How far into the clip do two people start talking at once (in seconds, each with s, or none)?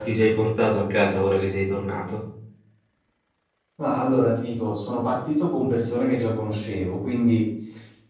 none